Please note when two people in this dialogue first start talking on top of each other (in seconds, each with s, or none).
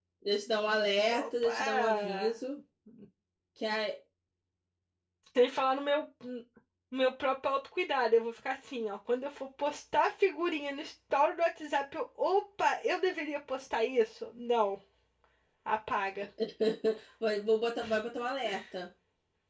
1.1 s